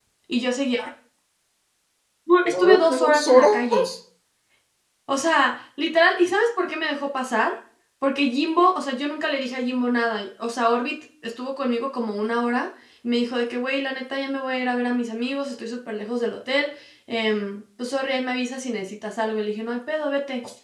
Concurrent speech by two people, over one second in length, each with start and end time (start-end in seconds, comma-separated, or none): 2.5-3.9